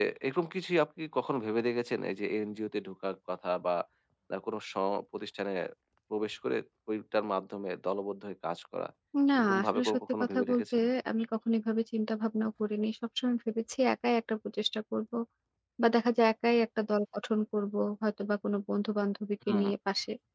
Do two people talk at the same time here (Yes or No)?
Yes